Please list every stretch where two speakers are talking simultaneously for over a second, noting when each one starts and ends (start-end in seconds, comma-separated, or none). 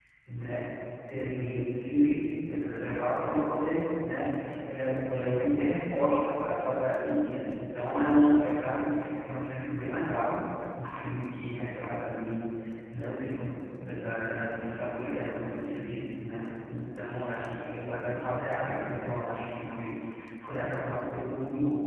none